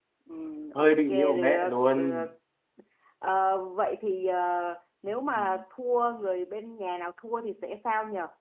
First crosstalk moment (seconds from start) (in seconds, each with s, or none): 0.8 s